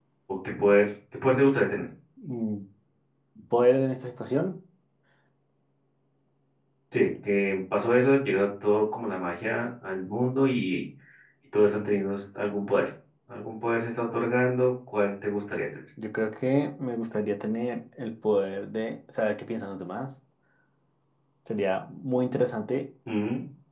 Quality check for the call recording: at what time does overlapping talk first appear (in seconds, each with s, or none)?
none